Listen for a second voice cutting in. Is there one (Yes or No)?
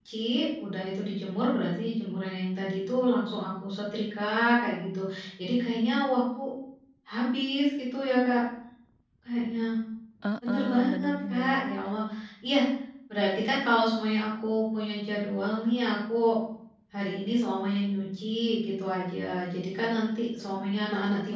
Yes